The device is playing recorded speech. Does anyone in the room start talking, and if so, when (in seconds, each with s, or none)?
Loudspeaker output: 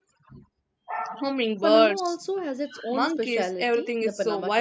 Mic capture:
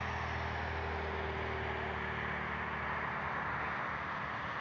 none